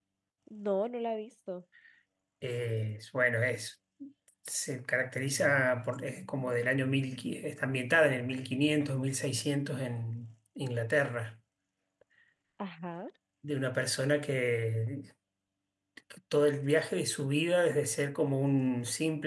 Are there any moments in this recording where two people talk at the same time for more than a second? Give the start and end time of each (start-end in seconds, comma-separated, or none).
none